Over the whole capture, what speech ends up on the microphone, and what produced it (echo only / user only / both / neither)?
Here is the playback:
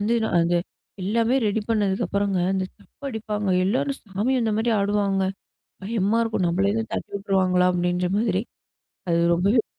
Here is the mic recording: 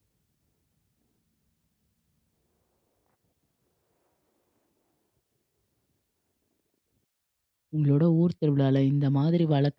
user only